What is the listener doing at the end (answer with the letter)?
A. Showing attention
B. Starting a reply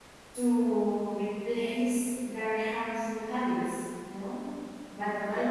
A